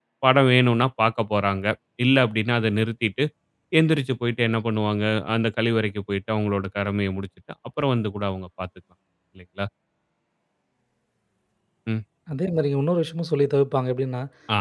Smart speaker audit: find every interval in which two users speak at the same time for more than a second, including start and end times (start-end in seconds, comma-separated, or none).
none